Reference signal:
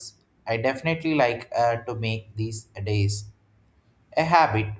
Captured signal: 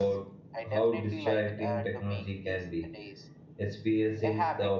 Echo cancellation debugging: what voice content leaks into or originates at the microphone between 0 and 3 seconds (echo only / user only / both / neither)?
both